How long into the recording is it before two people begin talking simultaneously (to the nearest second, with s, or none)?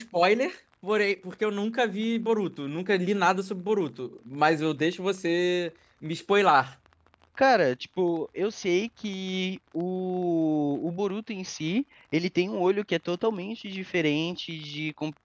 none